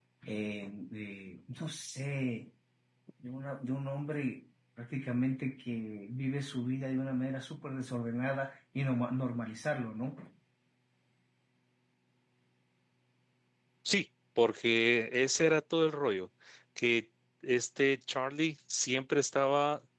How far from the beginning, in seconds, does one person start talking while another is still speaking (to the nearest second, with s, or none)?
none